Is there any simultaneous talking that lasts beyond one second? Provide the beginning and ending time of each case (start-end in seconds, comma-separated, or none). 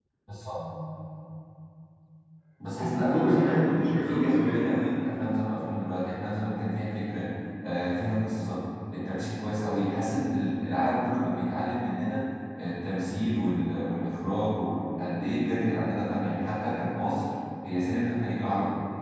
2.8-4.8